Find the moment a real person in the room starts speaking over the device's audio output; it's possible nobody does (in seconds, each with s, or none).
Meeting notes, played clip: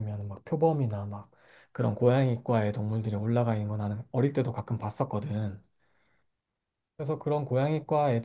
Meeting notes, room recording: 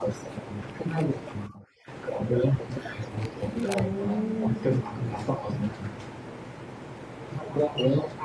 3.6 s